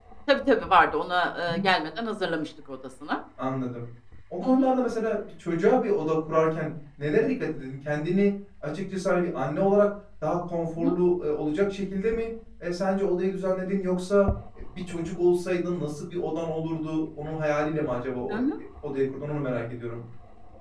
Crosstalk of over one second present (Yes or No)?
No